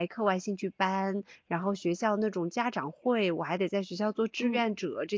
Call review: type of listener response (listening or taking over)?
listening